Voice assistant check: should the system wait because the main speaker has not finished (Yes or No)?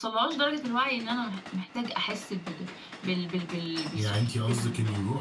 No